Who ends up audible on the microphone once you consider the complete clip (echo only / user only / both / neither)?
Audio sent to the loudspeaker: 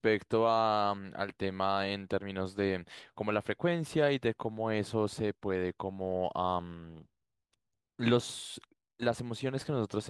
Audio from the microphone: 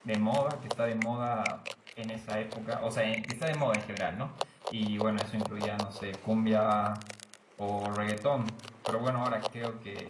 user only